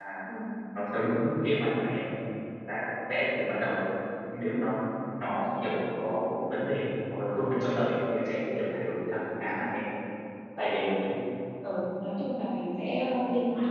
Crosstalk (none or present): none